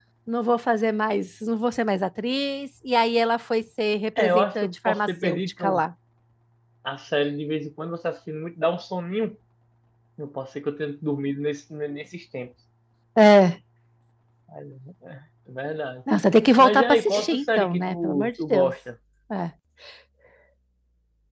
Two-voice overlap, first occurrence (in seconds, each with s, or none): 4.2 s